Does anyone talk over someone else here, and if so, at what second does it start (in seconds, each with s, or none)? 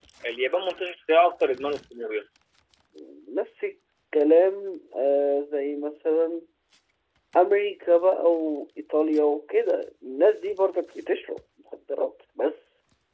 none